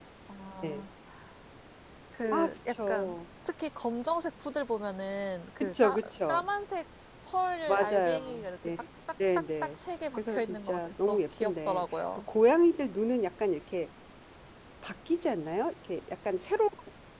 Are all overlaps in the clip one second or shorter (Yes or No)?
No